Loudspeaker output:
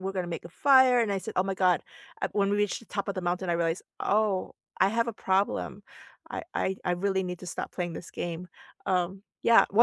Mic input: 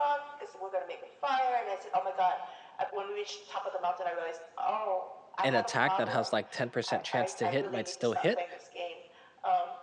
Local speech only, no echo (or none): an attack that has like 10% chance to hit might still hit.